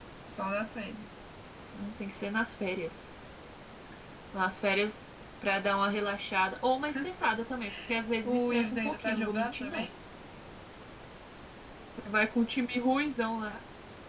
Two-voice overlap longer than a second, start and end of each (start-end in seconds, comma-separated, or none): 8.2-9.9